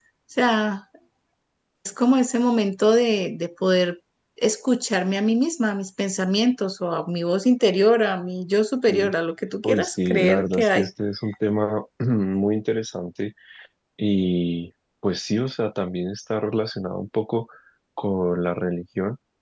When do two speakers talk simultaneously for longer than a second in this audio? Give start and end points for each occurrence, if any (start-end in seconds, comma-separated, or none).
9.6-10.9